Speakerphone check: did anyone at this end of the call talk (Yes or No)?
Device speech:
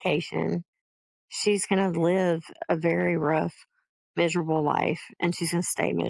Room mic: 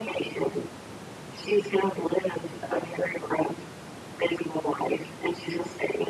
No